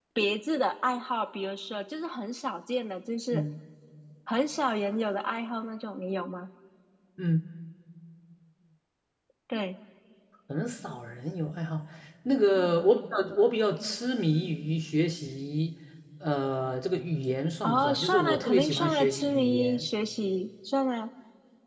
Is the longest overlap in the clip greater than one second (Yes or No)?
Yes